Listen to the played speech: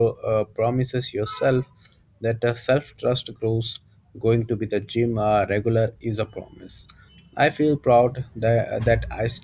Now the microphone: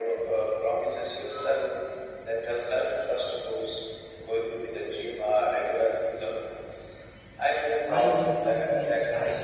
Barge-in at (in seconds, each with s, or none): 7.9 s